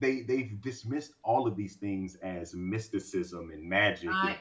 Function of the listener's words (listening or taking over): listening